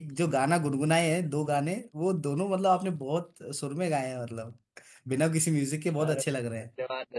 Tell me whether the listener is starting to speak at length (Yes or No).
Yes